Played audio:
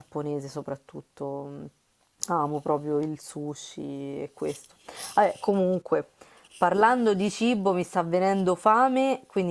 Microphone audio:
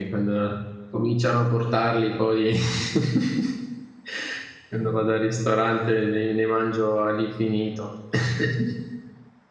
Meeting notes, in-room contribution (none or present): present